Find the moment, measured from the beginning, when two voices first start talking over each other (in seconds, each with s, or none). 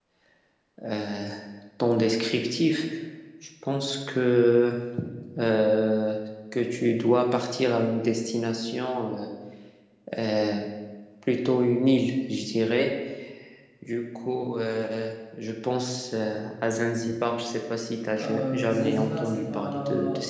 18.2 s